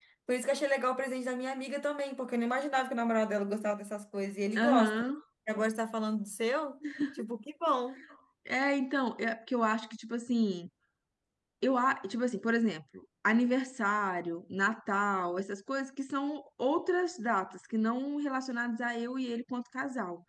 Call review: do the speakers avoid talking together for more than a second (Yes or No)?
Yes